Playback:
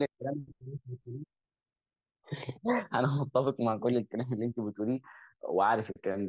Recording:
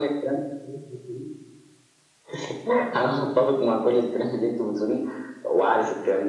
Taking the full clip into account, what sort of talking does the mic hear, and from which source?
echo only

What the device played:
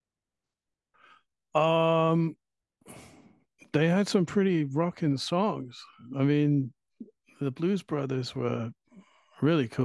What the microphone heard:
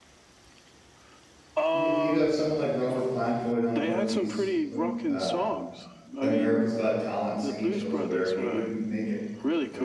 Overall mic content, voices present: both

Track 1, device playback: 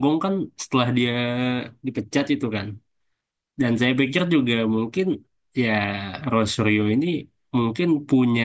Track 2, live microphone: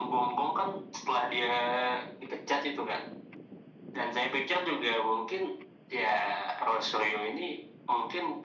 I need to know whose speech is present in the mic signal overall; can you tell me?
echo only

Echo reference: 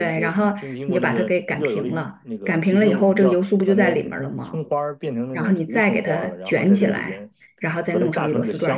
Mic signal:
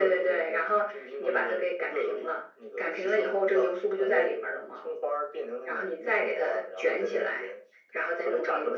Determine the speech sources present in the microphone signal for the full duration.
echo only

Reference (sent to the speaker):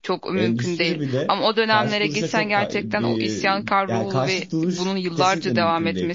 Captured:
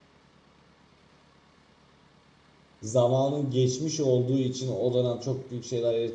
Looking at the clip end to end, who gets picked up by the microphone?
user only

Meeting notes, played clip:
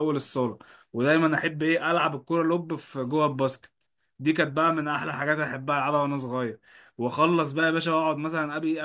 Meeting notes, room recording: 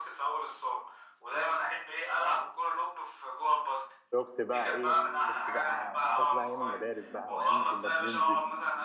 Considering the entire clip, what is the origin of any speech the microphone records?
both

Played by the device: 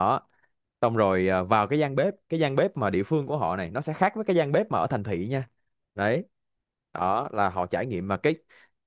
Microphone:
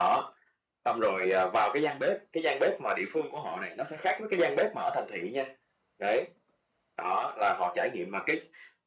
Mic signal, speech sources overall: echo only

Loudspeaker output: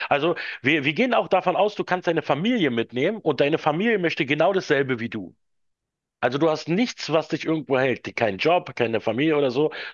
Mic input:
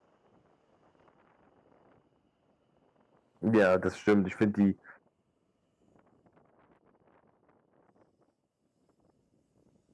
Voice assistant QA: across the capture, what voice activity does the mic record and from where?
user only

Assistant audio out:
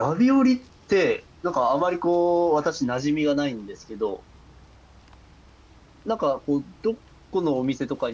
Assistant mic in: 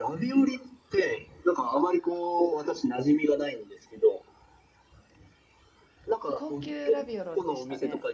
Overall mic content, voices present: both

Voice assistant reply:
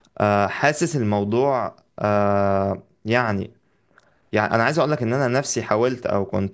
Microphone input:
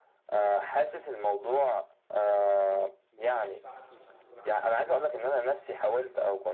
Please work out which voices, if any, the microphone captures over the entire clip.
both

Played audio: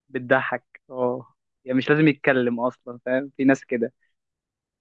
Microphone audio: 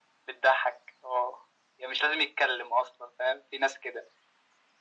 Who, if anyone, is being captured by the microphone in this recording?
echo only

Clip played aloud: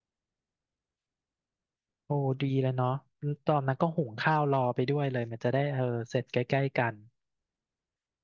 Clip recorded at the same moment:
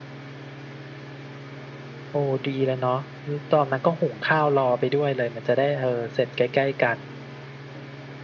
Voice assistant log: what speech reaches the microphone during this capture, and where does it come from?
echo only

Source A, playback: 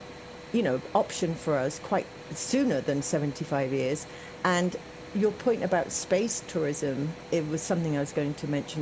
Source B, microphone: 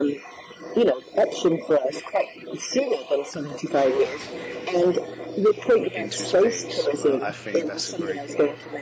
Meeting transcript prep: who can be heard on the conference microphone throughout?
both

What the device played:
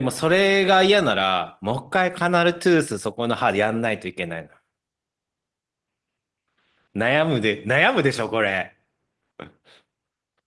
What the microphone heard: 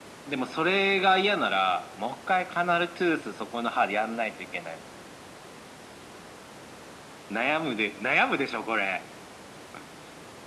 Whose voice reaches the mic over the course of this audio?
echo only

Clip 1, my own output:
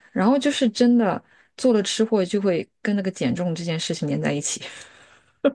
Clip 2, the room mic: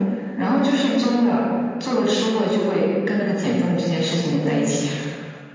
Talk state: echo only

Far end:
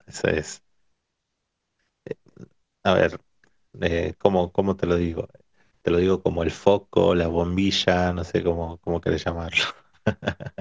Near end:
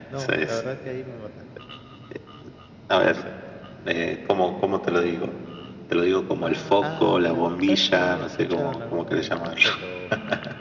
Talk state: both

